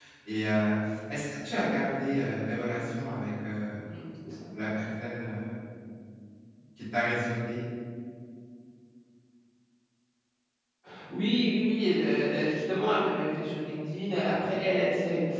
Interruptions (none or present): none